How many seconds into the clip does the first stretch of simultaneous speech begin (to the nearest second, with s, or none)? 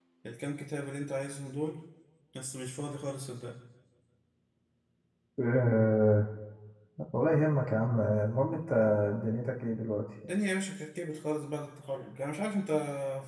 none